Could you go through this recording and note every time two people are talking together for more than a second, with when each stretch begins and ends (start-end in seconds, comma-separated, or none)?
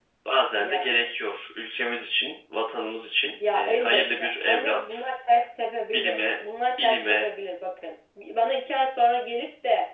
3.5-5.1